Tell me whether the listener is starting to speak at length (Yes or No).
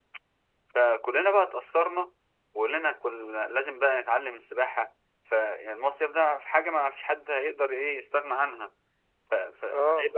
No